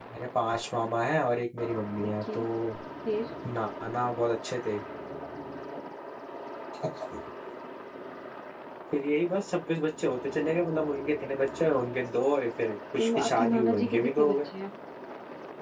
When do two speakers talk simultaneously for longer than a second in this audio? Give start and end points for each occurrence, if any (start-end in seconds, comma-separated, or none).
13.0-14.5